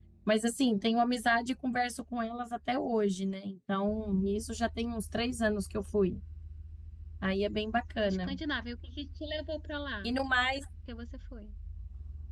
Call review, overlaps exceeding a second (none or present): none